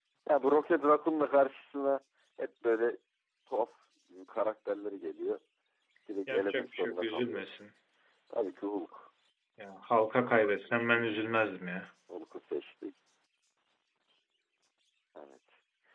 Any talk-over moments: Yes, from 6.3 s

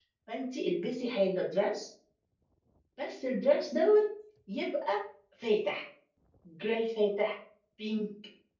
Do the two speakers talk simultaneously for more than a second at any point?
No

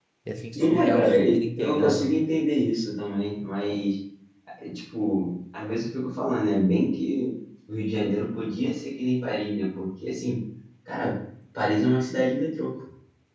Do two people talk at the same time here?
Yes, from 0.6 s

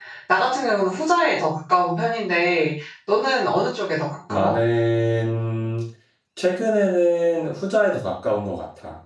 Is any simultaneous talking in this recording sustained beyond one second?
No

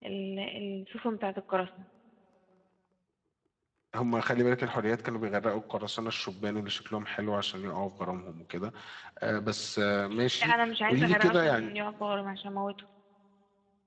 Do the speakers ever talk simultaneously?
Yes, from 10.4 s

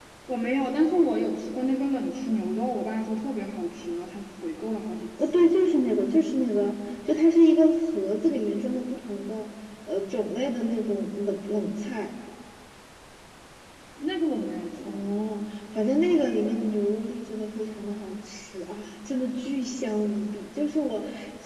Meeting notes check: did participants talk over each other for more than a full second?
No

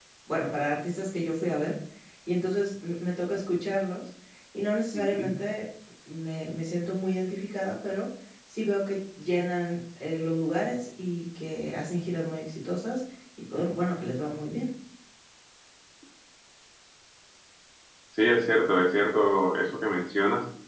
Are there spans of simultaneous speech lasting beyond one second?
No

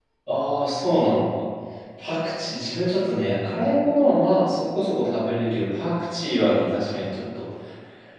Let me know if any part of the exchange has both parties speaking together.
No

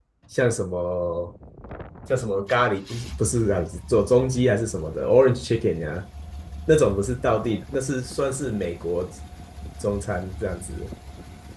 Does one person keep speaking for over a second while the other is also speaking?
No

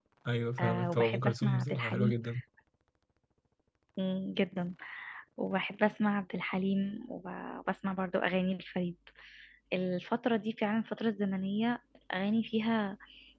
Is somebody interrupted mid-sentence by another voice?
Yes, from 0.6 s

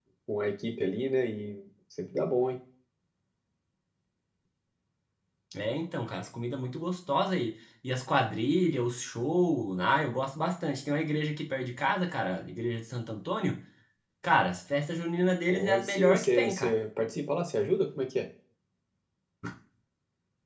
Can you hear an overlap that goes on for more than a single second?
Yes, from 15.5 s

